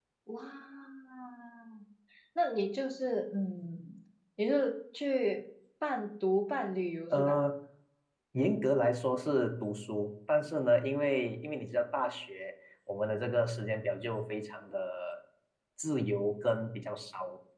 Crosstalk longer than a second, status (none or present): none